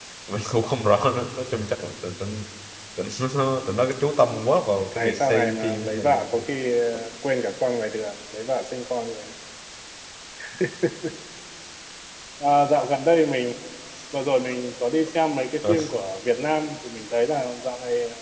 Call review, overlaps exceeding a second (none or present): present